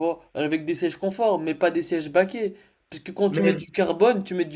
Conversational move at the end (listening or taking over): listening